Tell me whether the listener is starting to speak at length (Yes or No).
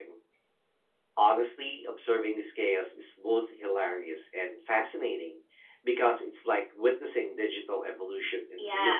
Yes